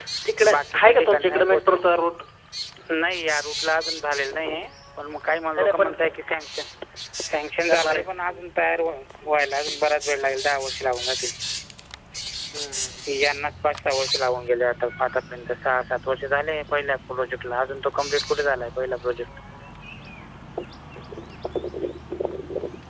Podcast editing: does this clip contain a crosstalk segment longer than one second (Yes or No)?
Yes